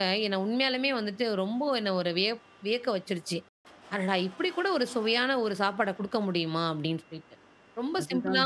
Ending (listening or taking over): listening